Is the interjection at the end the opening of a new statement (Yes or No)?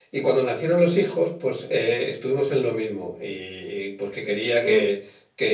No